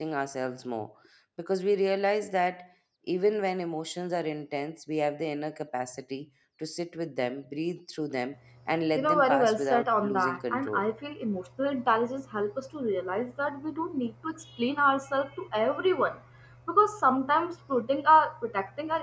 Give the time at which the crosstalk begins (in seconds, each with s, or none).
8.9 s